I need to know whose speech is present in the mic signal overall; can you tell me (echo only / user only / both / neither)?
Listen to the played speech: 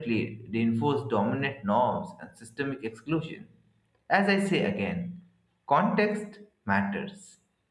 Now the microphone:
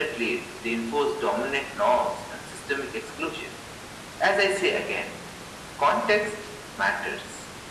echo only